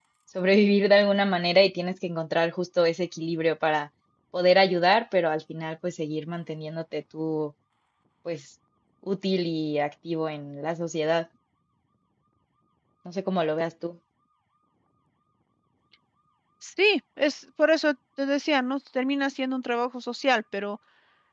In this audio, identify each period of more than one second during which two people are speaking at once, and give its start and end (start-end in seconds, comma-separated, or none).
none